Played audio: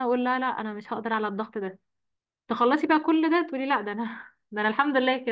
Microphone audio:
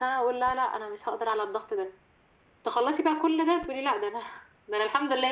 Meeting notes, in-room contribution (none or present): none